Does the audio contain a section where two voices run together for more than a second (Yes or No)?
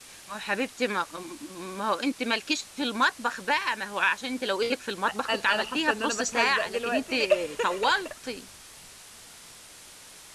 Yes